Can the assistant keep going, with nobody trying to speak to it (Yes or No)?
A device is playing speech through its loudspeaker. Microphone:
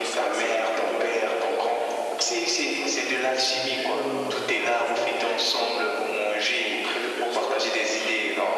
No